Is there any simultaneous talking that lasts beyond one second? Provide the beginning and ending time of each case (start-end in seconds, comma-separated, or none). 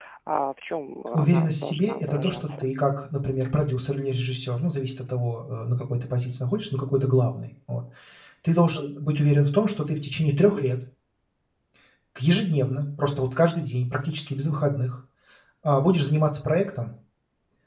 1.1-2.7